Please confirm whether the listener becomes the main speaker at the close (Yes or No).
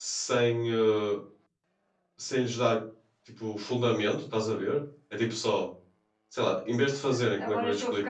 Yes